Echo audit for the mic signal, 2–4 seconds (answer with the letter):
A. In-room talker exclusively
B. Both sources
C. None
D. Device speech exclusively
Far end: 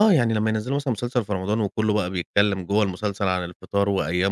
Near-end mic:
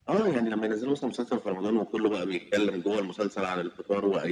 D